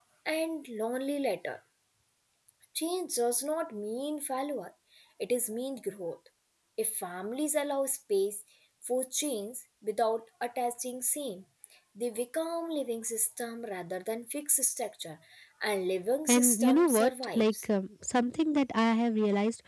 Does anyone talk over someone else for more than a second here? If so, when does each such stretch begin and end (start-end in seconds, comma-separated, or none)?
16.3-17.7